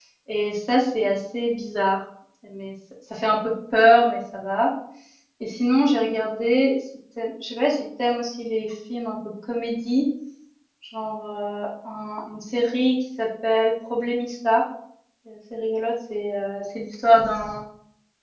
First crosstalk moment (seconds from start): none

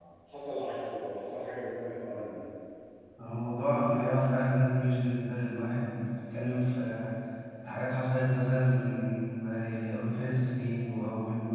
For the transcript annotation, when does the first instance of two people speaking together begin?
none

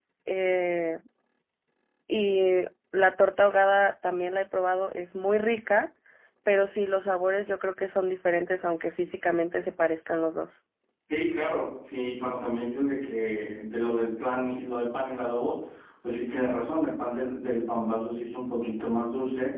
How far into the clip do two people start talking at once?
none

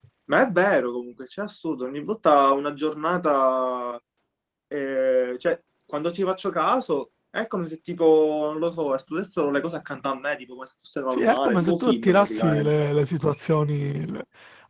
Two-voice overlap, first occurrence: 11.1 s

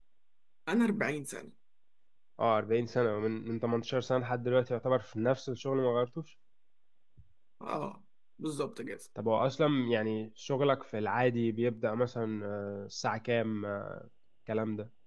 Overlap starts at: none

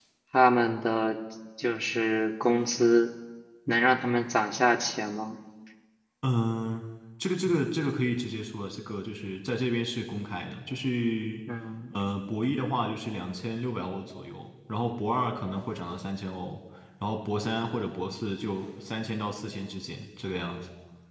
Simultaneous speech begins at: none

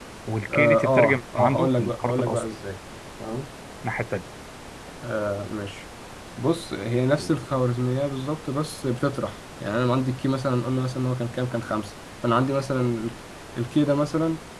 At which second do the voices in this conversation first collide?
0.5 s

